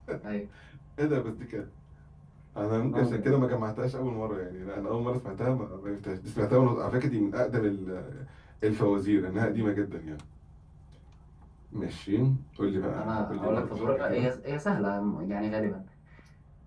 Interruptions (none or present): present